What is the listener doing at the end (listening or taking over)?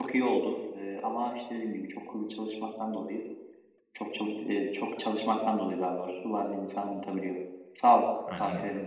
taking over